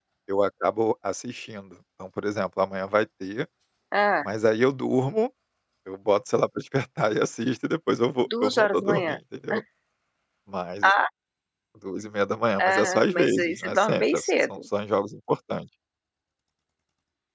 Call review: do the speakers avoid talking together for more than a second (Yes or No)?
No